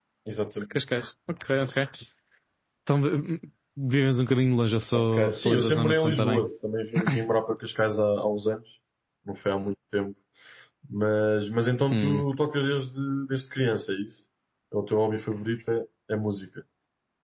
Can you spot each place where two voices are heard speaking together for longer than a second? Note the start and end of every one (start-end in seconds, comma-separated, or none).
4.9-6.4